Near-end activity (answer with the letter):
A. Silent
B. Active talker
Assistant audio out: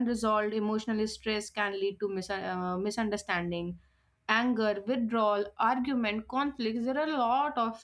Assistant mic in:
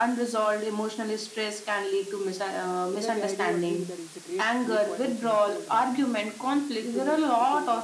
B